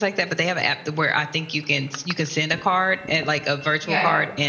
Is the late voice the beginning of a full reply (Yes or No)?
No